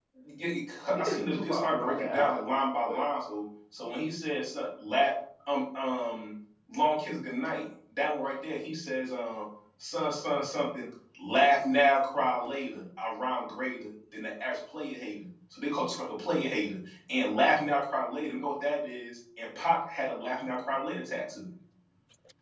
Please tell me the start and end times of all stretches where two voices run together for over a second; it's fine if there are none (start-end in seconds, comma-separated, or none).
1.0-2.3